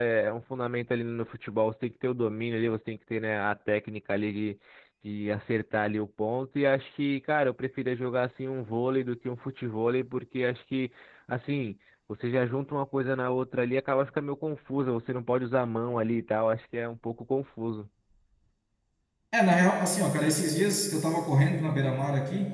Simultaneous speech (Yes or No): No